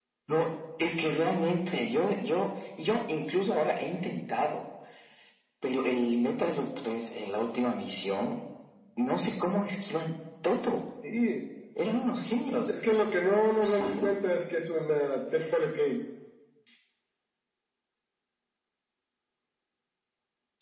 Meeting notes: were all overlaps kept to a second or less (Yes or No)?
Yes